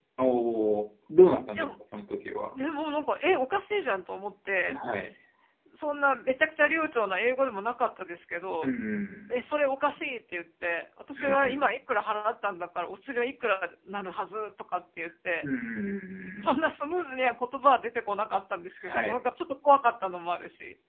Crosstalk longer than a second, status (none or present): none